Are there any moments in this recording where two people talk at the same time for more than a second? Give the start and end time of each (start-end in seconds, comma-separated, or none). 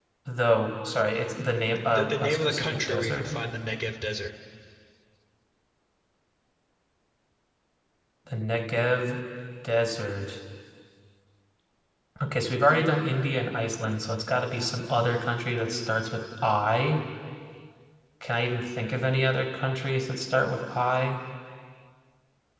1.8-3.4